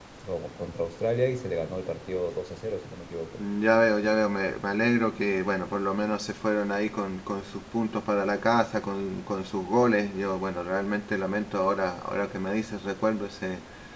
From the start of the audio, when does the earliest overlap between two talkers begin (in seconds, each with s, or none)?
none